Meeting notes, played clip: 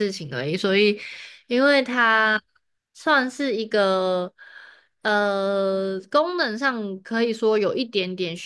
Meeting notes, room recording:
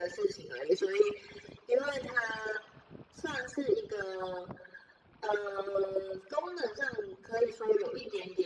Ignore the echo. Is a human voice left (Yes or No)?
No